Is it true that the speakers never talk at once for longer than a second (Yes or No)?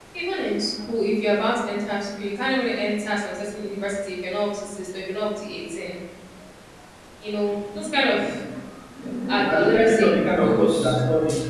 No